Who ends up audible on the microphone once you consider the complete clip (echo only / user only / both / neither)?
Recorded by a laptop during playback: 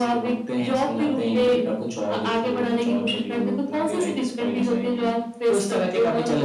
echo only